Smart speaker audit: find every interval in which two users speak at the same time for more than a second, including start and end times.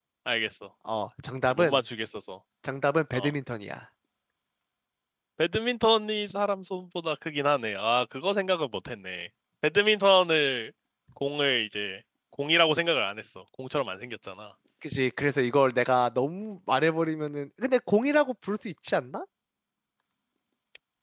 none

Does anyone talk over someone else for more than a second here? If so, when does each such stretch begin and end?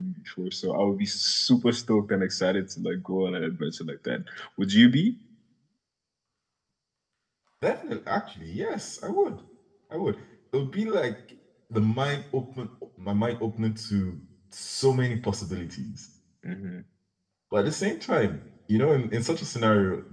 none

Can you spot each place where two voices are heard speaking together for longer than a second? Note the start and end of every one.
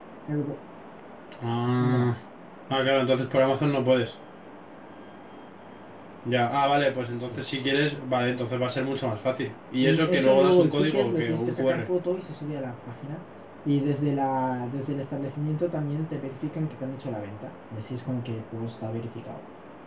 9.8-11.8

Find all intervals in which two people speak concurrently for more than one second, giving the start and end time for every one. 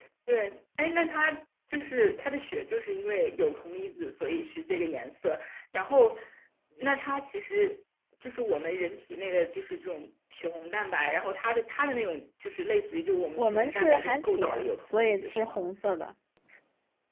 13.4-15.6

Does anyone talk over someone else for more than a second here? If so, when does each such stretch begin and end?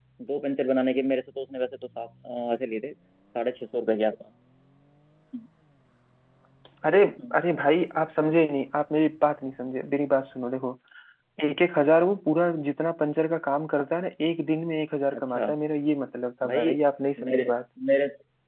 none

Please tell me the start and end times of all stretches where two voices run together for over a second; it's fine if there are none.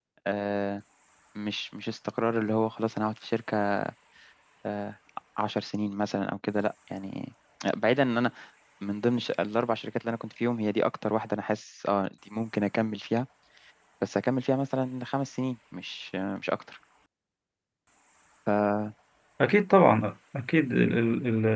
none

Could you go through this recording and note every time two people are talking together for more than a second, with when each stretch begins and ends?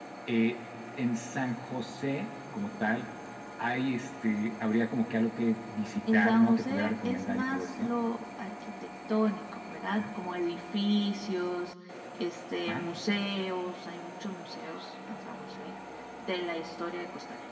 6.1-7.9

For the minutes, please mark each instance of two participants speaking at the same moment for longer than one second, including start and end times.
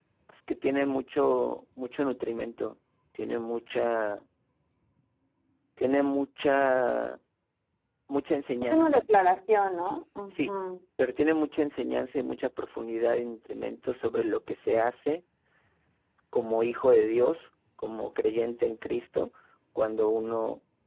none

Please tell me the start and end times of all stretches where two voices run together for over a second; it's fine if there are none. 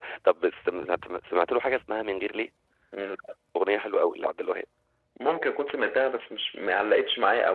none

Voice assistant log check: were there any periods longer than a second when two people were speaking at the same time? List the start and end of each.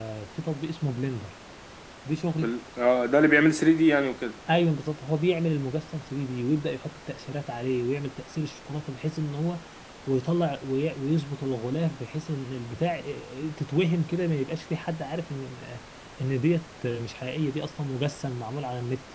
none

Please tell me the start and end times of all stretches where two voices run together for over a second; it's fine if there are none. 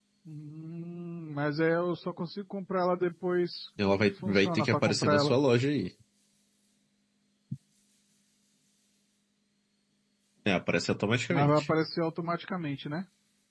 3.8-5.3

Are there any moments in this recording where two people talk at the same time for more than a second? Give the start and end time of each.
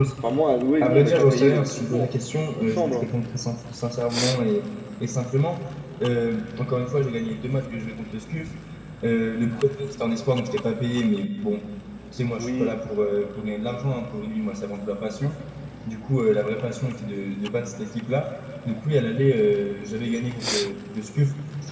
0.8-2.1

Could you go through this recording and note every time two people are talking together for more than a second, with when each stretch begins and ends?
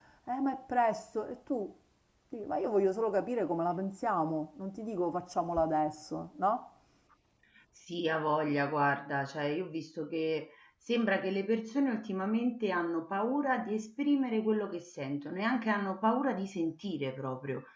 none

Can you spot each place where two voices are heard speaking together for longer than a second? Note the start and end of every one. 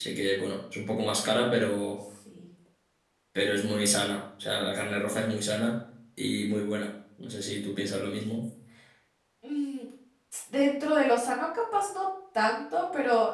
none

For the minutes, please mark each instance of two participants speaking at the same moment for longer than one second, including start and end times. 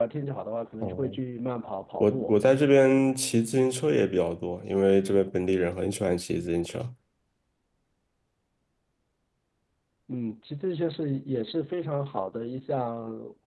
none

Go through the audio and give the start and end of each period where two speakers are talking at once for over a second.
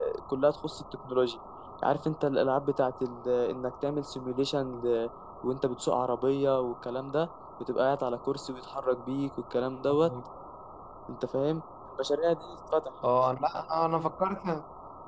none

